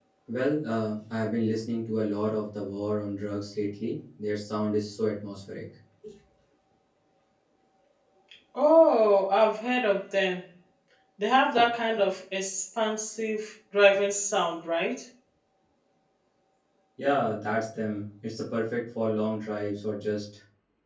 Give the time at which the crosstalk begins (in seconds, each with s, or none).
none